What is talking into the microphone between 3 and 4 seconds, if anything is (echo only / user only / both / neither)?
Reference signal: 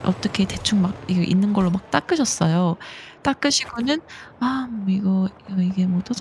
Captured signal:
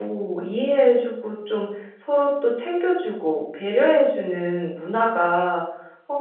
user only